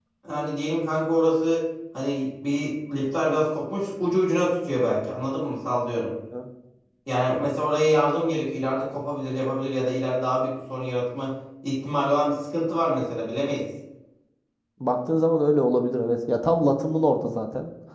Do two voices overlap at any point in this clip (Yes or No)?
No